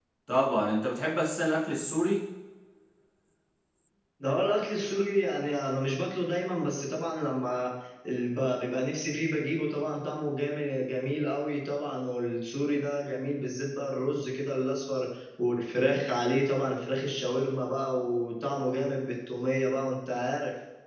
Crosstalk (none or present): none